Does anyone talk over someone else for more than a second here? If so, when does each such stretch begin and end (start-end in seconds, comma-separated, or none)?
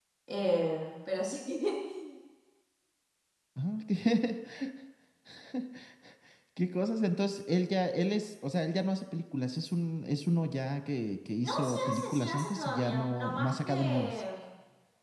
11.4-14.2